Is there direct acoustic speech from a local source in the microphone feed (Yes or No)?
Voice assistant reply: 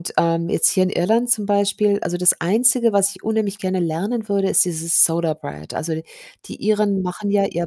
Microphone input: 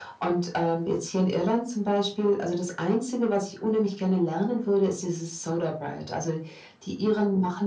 No